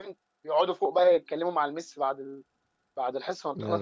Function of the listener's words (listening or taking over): listening